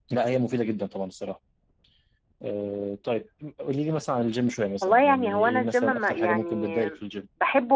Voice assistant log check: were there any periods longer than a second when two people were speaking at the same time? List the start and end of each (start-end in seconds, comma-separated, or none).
4.8-6.8